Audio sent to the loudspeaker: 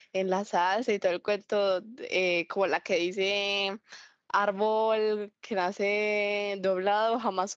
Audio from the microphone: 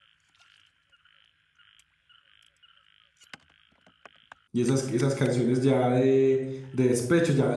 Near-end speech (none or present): present